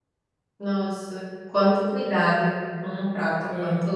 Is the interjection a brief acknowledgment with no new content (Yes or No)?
Yes